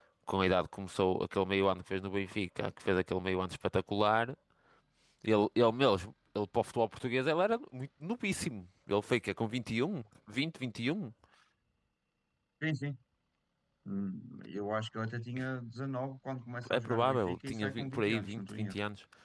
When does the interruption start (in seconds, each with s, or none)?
16.6 s